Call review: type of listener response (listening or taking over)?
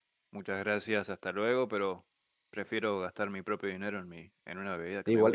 taking over